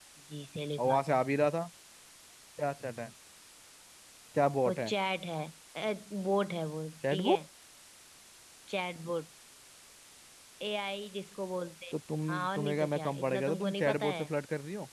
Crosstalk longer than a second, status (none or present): present